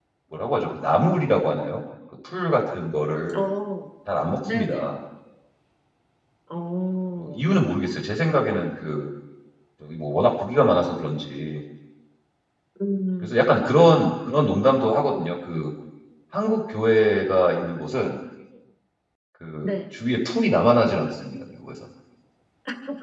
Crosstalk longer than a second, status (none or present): none